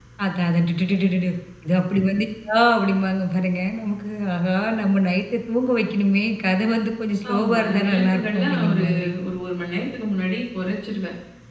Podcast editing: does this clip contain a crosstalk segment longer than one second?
Yes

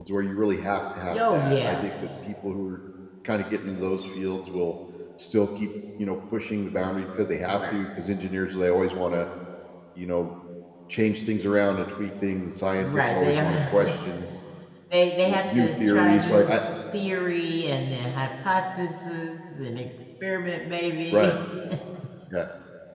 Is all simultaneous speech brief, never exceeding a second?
No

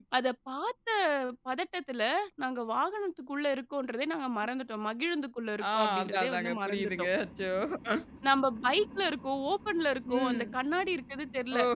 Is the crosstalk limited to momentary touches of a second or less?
No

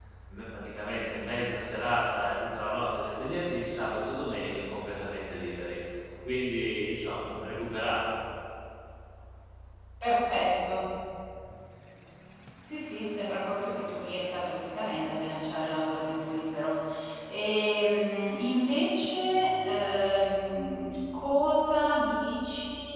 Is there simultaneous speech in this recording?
No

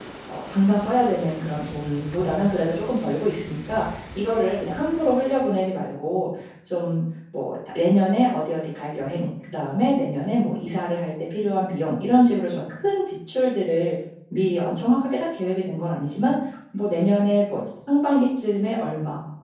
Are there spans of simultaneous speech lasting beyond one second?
No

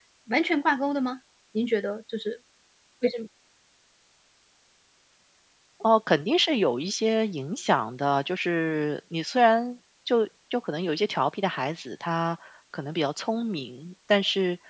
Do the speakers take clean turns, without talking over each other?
Yes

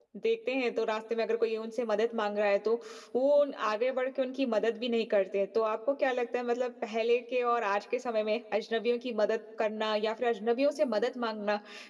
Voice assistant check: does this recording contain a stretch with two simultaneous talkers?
No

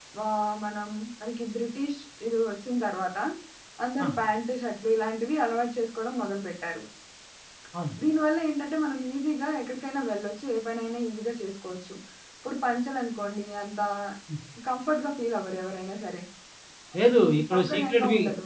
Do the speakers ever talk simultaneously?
Yes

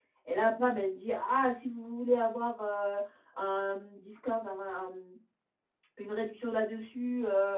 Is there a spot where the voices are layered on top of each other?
No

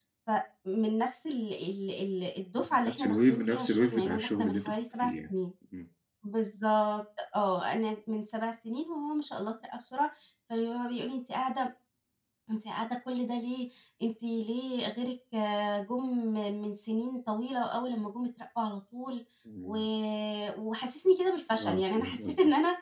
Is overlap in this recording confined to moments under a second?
No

